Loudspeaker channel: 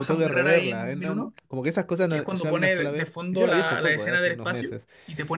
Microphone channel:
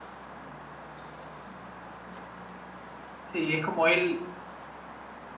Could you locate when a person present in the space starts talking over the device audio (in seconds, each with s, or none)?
3.2 s